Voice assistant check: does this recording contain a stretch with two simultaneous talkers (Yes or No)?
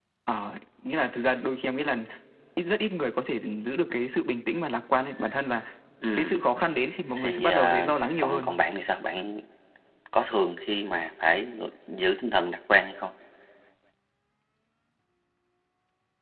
Yes